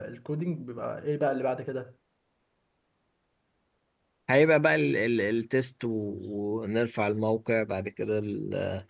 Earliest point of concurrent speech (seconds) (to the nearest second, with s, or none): none